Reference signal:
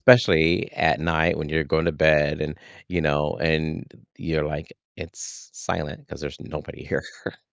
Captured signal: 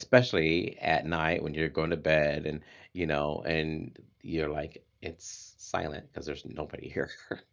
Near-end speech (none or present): none